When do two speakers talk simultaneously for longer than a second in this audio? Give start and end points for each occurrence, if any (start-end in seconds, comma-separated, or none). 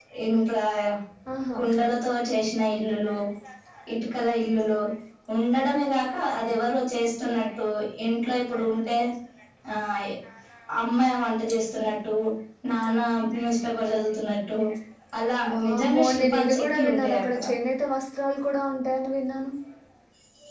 15.5-17.2